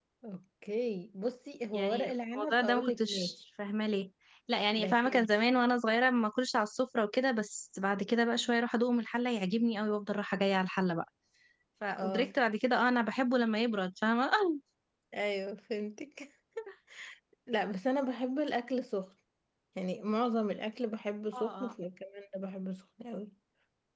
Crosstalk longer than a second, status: present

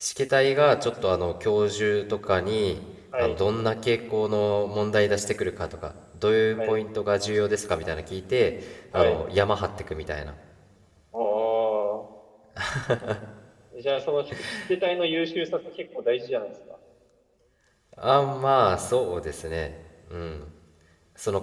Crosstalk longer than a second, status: none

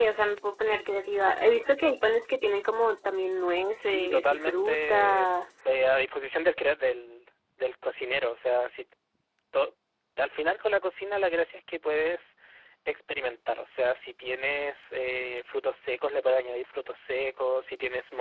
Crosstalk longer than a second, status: present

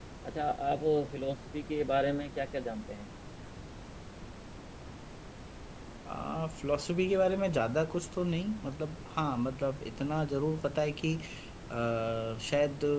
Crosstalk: none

